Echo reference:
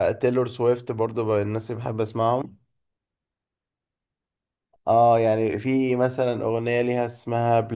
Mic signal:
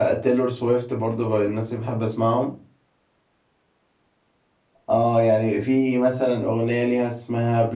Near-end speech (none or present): none